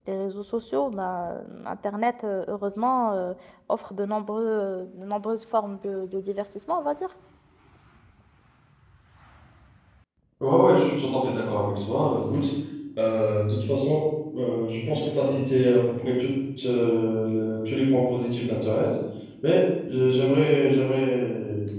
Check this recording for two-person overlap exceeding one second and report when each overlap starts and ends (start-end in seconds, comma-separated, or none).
none